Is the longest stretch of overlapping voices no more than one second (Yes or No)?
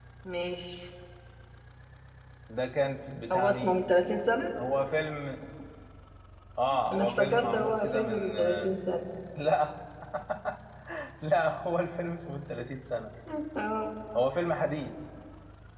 No